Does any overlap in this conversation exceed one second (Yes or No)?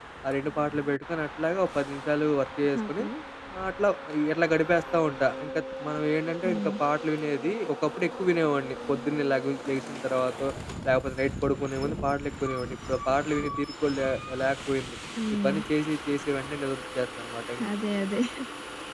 No